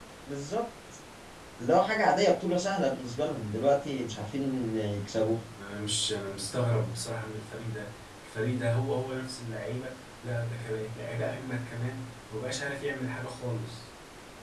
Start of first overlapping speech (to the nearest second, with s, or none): none